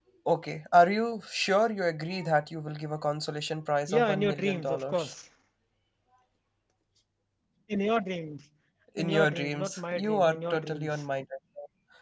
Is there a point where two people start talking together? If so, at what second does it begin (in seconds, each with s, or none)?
3.9 s